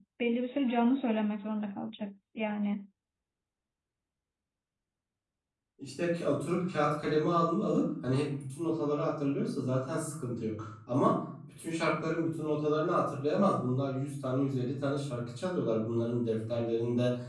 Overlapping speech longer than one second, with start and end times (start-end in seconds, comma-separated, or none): none